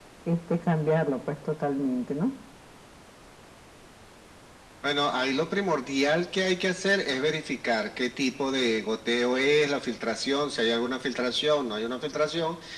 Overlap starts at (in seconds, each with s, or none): none